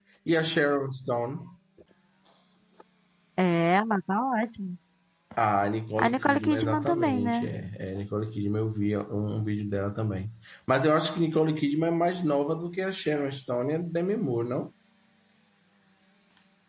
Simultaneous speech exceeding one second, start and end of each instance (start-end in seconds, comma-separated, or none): 6.0-7.5